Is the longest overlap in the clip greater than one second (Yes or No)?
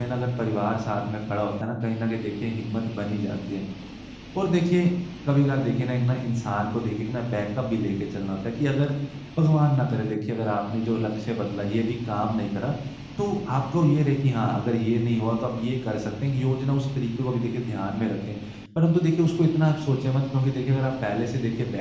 No